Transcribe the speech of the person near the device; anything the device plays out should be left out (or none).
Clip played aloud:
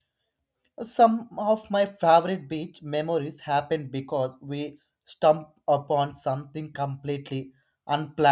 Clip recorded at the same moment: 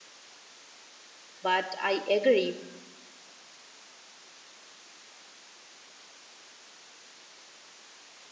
But I agree,